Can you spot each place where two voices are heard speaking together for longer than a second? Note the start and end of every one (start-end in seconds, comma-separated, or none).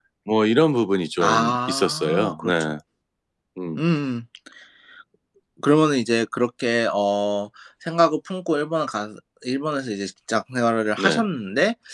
1.2-2.7